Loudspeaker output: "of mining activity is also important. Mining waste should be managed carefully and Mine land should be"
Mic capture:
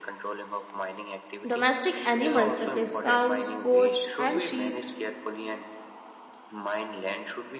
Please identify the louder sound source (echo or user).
user